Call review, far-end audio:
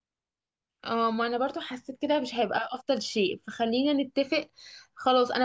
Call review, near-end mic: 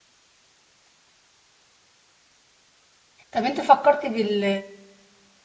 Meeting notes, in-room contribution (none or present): present